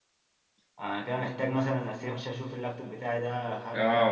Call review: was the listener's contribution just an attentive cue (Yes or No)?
No